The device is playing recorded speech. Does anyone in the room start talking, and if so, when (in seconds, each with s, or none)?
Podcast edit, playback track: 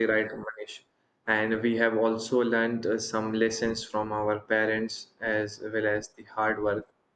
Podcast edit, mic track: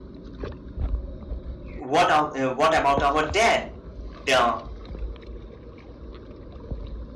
1.8 s